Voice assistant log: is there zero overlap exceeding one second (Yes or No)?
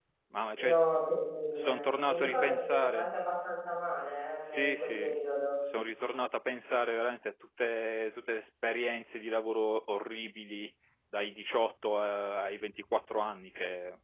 No